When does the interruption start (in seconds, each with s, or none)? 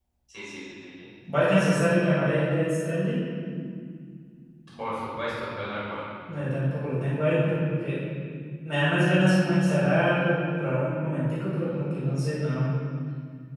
none